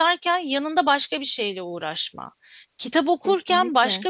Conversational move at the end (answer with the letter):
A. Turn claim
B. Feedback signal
B